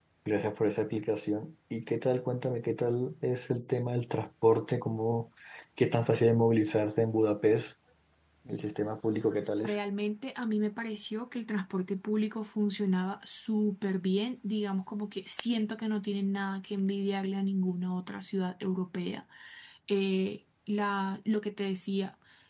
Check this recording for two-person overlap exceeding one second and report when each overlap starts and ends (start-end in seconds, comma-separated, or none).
none